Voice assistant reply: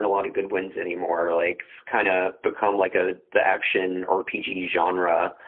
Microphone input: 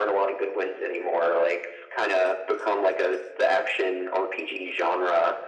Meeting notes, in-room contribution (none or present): none